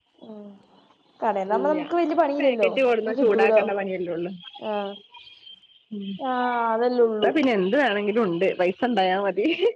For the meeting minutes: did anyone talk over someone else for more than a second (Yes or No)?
Yes